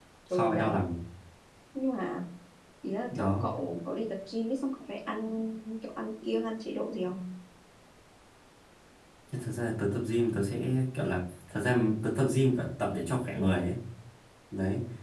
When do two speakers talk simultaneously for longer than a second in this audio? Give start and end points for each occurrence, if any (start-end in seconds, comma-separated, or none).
none